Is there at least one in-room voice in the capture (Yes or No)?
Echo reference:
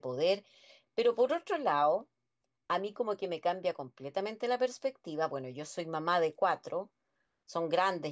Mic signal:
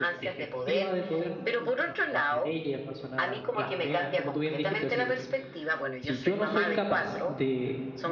Yes